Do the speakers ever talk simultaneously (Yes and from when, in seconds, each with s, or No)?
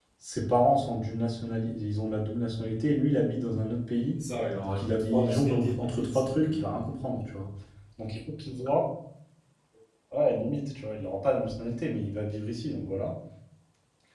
Yes, from 4.6 s